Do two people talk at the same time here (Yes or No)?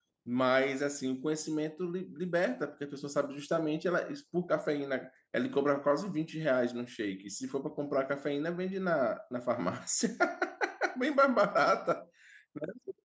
No